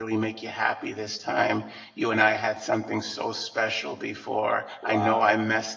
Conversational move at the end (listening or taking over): listening